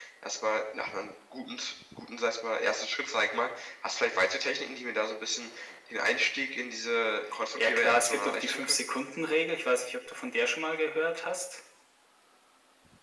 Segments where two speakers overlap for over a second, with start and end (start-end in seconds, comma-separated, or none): 7.6-8.8